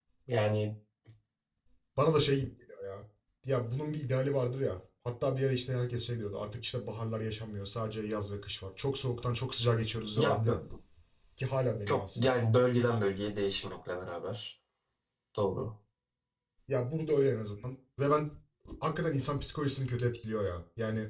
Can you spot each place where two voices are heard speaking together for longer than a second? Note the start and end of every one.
none

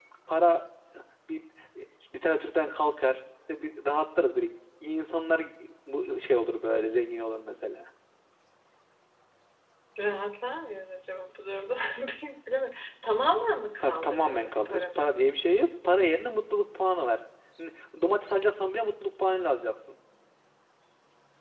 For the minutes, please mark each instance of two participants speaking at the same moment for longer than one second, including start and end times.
13.8-15.0

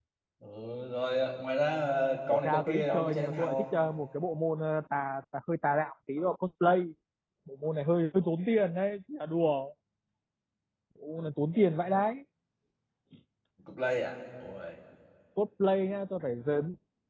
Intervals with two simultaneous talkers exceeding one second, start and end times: 2.3-3.6

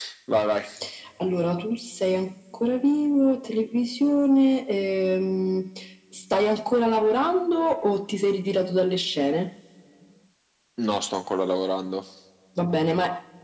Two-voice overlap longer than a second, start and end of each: none

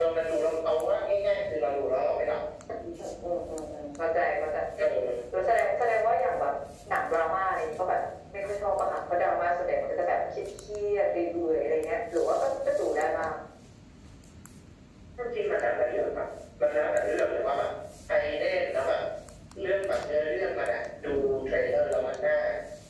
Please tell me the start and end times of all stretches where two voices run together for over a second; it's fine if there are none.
none

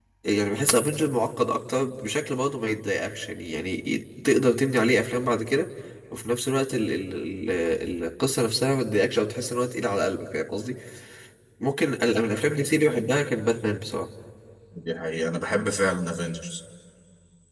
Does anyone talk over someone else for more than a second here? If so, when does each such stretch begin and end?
none

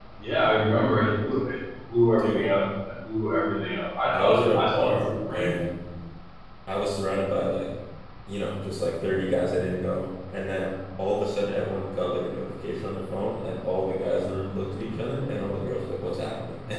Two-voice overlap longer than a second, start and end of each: 4.1-5.5

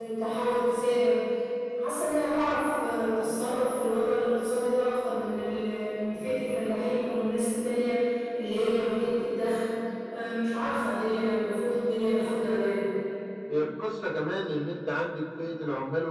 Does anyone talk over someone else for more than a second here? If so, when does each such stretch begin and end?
none

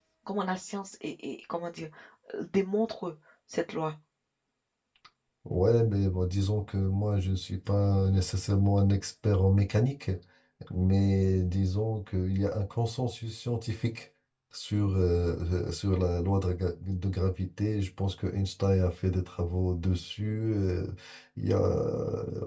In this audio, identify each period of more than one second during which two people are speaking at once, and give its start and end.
none

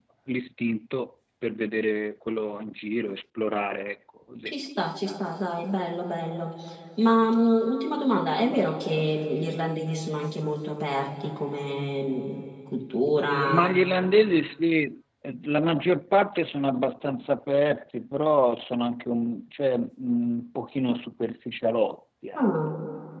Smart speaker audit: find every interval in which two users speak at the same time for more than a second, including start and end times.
none

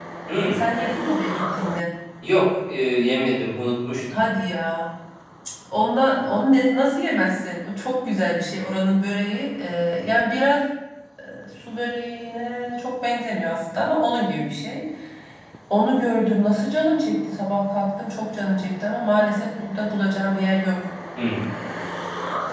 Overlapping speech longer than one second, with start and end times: none

